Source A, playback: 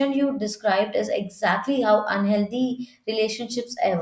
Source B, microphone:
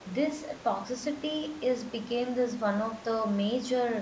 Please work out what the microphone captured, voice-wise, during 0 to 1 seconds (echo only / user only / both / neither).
user only